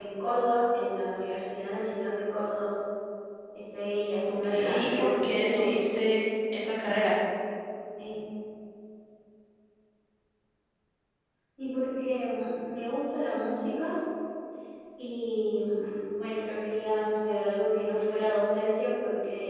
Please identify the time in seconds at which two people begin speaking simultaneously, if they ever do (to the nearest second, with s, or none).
4 s